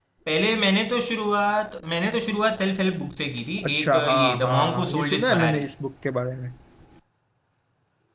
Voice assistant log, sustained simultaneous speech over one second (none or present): present